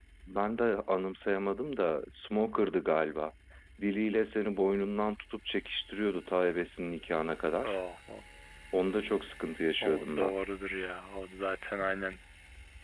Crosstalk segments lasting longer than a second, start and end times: none

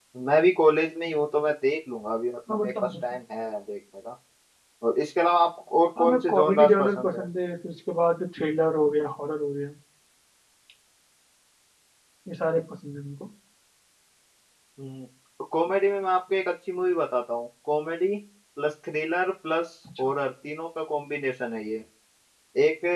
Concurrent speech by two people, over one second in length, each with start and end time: 6.0-7.2

